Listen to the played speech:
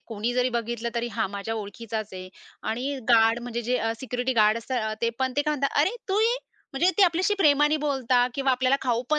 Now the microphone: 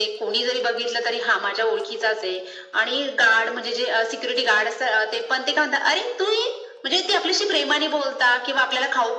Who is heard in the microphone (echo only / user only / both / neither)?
echo only